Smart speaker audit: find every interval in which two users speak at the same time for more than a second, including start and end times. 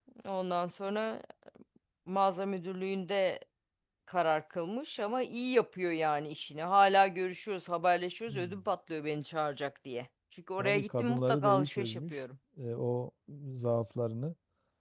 10.6-12.2

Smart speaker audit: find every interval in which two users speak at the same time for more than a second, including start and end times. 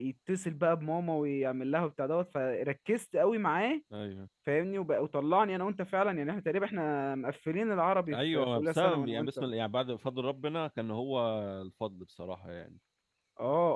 8.1-9.4

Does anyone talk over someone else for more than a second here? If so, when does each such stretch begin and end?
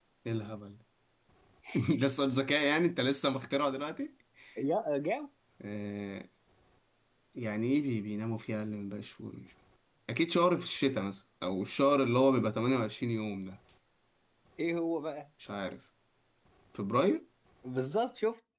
none

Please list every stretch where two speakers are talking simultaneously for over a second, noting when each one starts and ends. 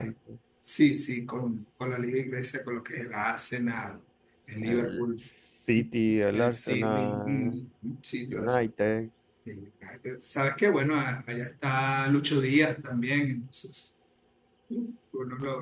6.3-7.6

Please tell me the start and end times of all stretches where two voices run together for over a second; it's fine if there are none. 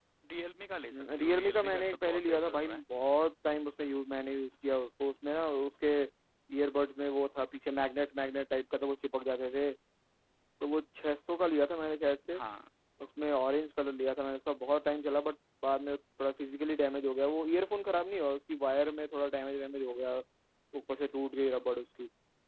0.9-2.8

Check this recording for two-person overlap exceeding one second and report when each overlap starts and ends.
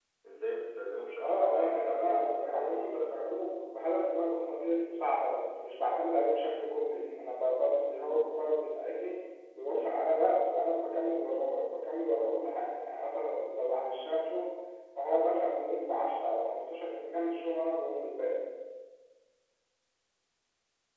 1.2-3.2

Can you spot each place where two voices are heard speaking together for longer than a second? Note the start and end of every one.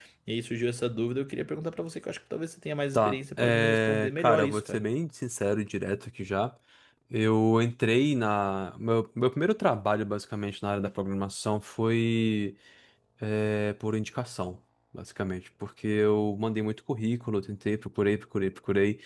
2.9-4.8

